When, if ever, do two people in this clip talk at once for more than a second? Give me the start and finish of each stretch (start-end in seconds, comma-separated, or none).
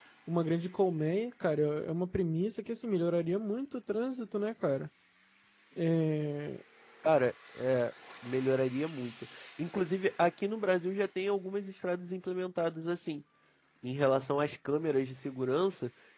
none